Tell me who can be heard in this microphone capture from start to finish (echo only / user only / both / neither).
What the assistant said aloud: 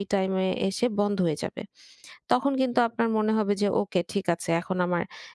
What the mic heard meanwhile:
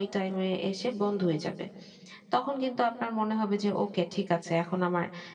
echo only